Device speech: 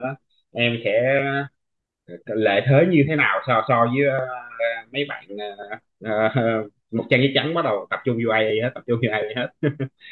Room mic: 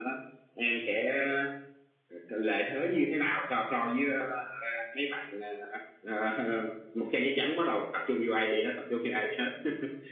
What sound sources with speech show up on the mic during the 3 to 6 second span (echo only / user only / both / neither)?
echo only